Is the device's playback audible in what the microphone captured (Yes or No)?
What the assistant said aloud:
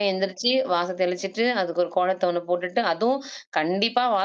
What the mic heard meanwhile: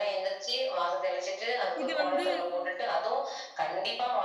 Yes